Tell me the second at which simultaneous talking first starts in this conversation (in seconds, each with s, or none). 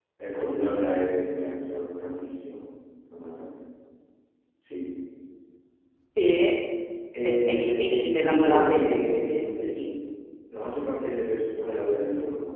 7.2 s